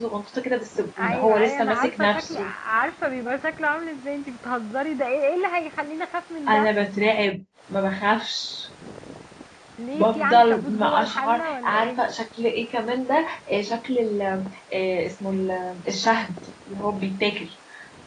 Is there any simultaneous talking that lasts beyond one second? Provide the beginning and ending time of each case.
1.0-2.5, 9.9-12.0

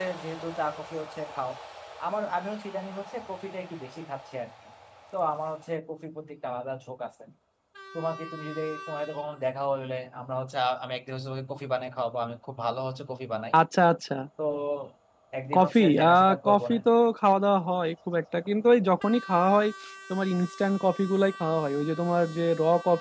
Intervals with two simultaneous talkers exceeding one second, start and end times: 15.6-16.8

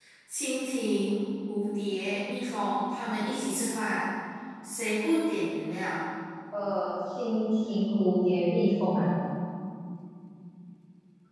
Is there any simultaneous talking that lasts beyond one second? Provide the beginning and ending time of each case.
none

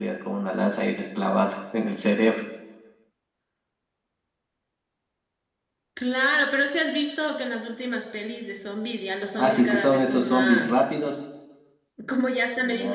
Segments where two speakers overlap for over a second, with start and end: 9.4-10.8

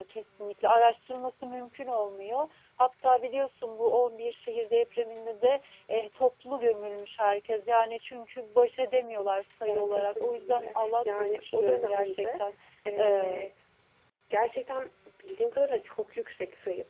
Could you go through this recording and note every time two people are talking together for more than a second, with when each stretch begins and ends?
9.7-12.4

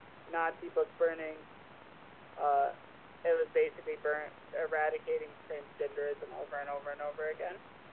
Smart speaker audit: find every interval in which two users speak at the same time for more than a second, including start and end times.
none

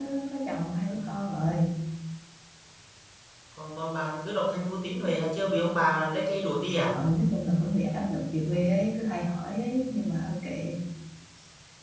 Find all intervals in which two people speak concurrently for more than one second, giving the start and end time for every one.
none

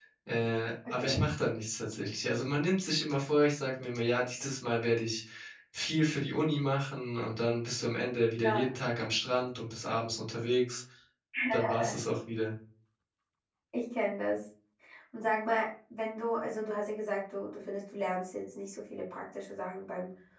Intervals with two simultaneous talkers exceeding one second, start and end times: none

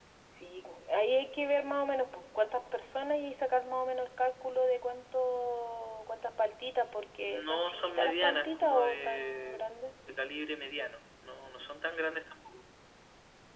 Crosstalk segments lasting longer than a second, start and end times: 7.3-9.6

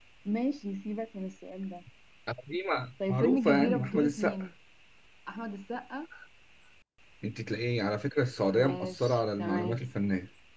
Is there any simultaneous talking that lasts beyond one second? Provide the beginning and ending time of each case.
3.1-4.4, 8.5-9.8

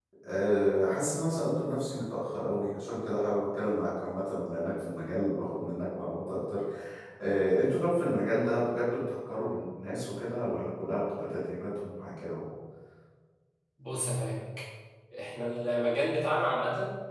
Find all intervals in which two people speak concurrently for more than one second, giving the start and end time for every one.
none

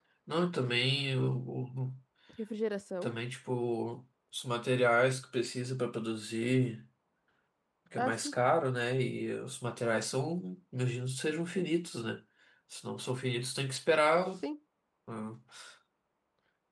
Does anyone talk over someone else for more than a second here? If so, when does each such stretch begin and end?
none

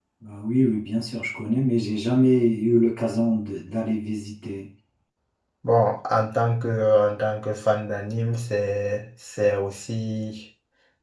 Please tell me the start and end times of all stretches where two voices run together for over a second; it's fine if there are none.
none

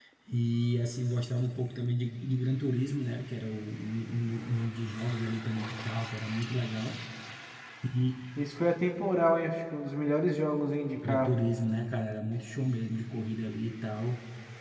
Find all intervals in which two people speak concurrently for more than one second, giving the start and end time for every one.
none

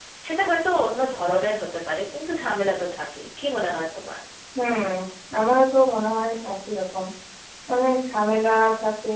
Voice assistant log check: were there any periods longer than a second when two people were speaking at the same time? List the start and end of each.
none

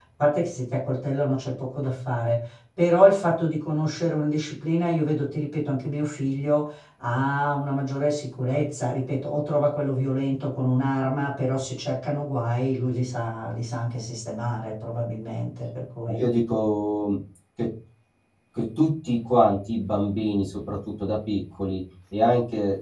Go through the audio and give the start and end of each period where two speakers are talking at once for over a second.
none

